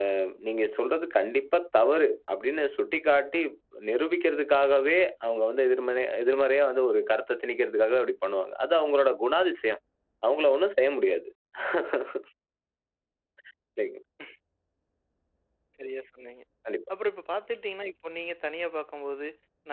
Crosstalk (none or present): none